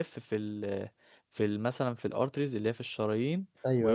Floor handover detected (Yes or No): No